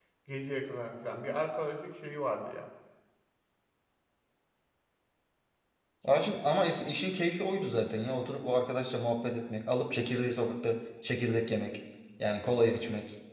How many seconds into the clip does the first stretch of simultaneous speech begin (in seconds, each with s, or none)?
none